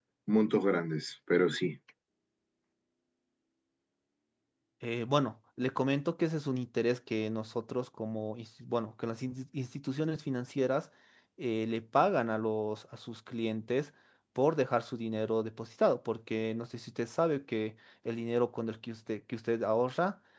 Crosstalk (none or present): none